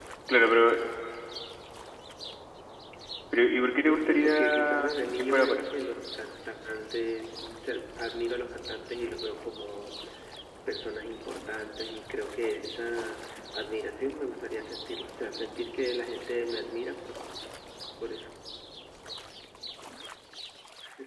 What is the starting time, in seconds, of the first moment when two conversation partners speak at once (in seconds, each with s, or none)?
3.8 s